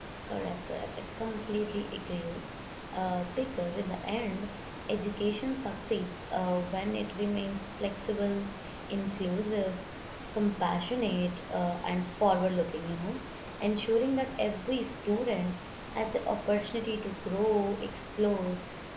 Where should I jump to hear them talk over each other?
none

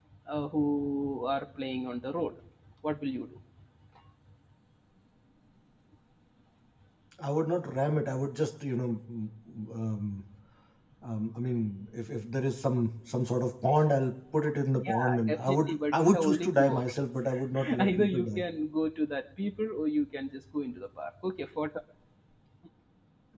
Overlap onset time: 14.8 s

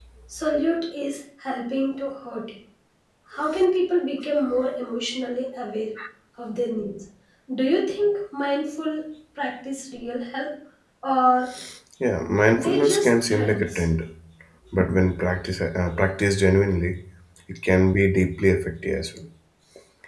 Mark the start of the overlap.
12.5 s

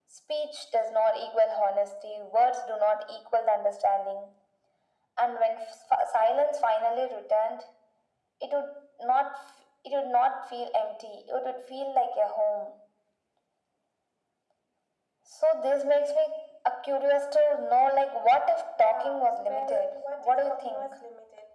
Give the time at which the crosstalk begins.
18.8 s

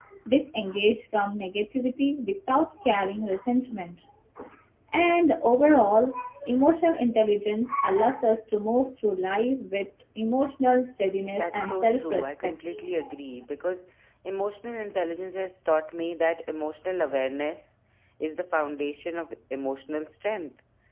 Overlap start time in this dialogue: 11.4 s

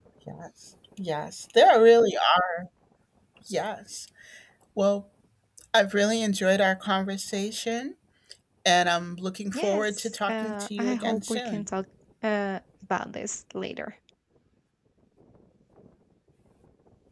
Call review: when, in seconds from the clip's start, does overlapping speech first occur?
9.5 s

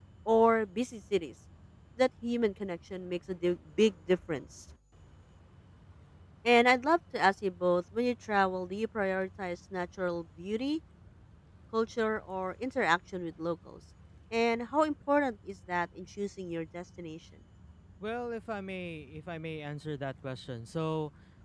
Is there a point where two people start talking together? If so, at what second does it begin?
none

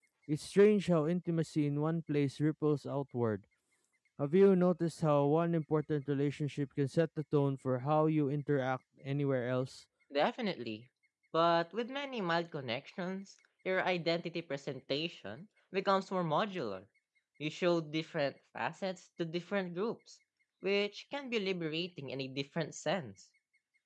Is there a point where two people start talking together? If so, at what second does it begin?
none

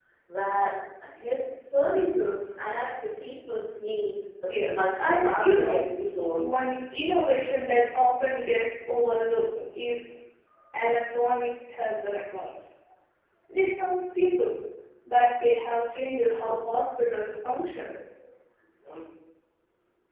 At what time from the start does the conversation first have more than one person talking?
4.5 s

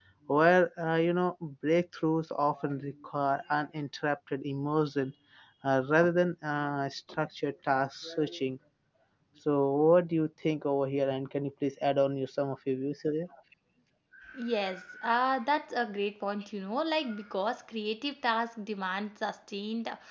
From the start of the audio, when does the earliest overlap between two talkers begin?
none

